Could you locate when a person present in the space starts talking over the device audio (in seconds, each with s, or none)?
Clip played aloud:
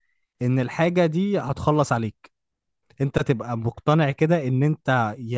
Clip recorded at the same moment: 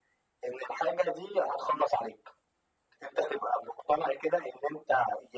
none